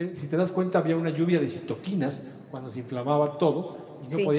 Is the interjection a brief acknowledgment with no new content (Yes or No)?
Yes